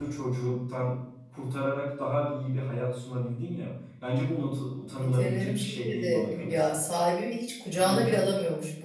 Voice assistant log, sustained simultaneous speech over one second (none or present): present